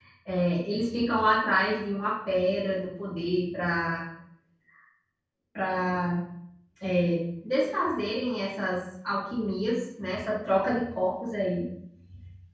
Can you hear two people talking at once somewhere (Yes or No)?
No